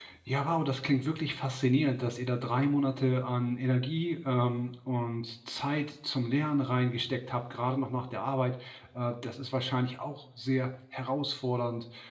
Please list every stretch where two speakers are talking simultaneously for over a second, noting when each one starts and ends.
none

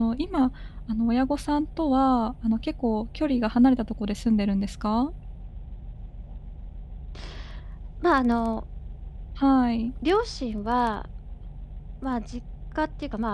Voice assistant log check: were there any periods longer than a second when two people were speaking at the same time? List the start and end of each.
none

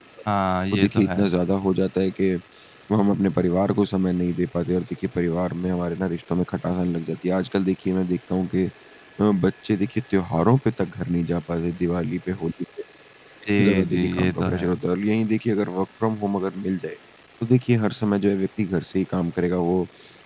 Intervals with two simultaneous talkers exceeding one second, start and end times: 13.6-14.8

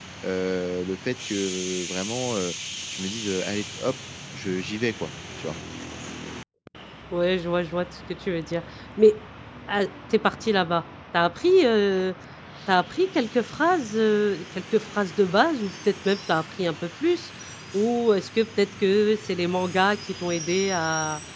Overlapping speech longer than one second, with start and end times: none

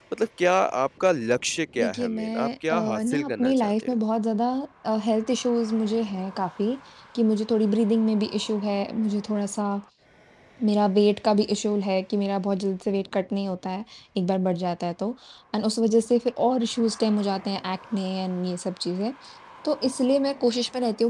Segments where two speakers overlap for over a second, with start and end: 1.8-3.9

